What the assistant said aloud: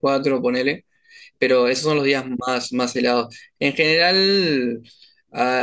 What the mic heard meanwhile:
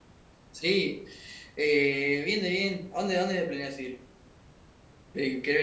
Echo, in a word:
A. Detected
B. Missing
B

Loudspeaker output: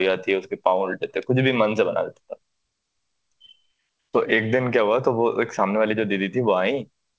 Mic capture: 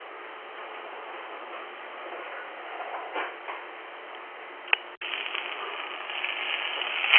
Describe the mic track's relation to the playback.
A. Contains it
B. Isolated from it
B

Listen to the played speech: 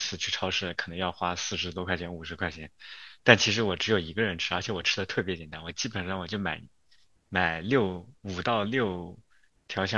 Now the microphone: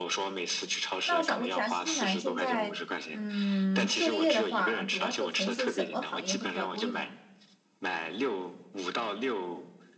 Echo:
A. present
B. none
A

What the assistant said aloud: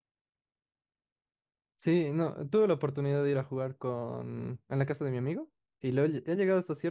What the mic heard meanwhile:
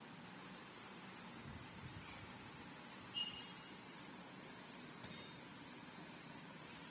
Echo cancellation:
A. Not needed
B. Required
A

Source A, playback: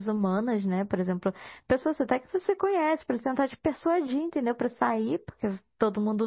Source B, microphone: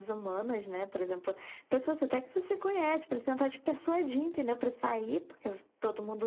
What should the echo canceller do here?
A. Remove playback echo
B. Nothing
A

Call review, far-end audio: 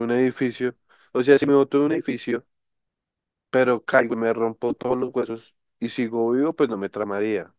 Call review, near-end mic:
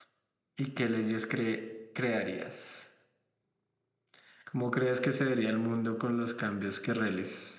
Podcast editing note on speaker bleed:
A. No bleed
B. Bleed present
A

